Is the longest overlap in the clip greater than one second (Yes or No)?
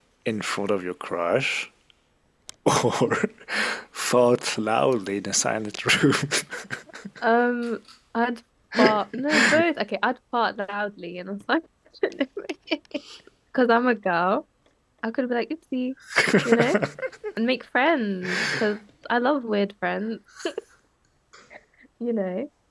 No